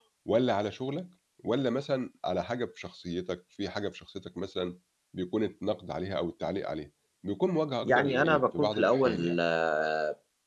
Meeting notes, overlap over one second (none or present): present